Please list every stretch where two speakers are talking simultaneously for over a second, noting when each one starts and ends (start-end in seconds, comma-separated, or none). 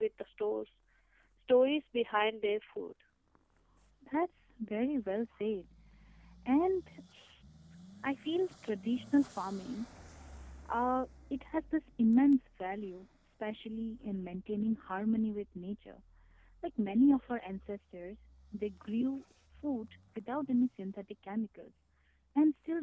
none